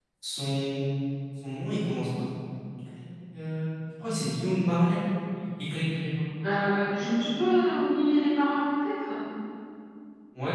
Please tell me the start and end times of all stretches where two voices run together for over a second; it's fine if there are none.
none

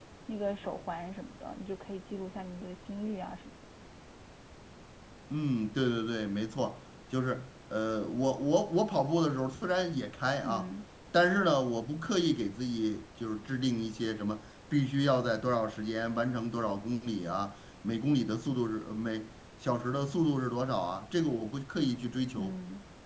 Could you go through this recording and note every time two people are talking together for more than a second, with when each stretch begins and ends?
none

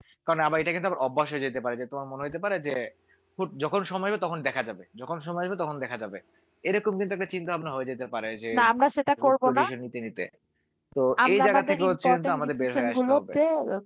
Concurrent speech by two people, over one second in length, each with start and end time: 11.2-13.3

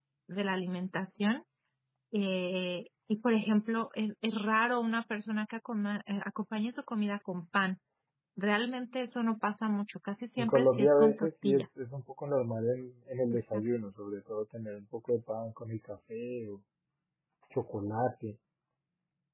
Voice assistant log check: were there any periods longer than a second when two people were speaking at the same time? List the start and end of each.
10.4-11.6

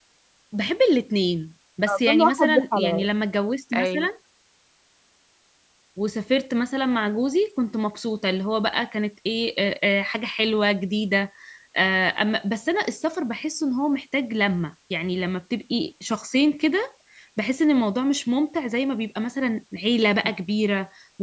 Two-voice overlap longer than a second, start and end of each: 1.9-3.1

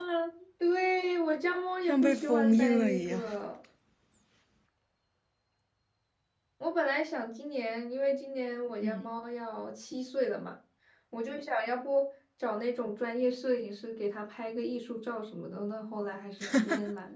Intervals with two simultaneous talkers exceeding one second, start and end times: 1.9-3.2

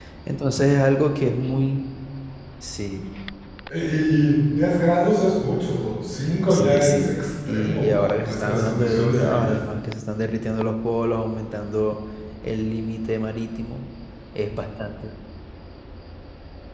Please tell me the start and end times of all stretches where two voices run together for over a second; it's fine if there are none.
6.5-9.6

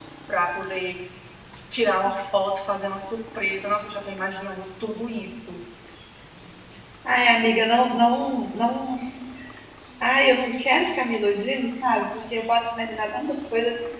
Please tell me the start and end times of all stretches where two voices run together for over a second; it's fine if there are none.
none

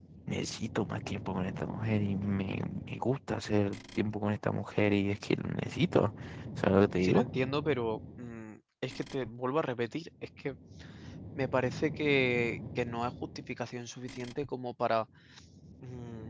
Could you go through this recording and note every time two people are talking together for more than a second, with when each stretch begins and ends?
none

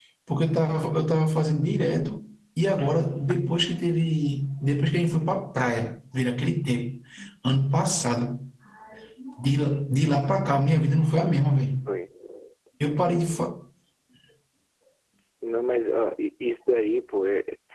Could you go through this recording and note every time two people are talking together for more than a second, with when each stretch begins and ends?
none

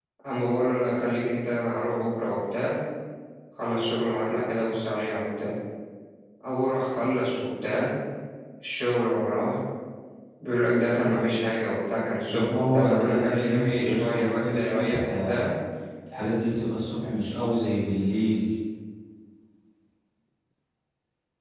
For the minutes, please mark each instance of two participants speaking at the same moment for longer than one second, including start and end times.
12.3-15.5

